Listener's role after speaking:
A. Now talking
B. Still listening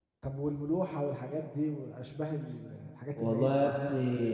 A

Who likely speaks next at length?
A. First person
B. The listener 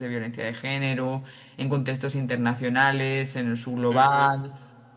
A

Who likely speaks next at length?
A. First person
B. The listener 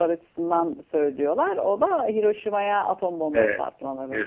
B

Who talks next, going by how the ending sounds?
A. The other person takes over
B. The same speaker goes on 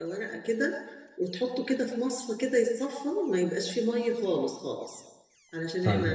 B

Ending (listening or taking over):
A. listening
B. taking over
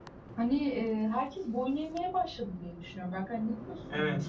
B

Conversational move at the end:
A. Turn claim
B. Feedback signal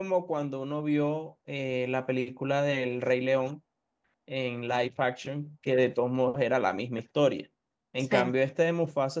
B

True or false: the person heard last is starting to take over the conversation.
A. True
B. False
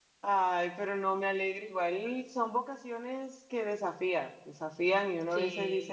B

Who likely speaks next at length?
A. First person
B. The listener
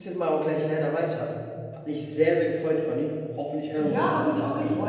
B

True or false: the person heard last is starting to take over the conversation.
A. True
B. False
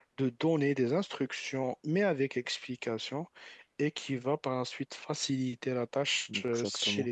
B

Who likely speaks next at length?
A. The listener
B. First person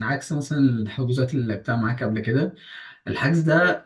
B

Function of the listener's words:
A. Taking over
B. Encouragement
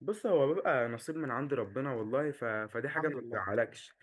B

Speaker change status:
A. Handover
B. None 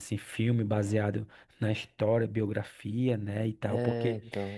A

